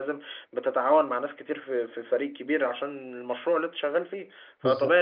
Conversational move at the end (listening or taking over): listening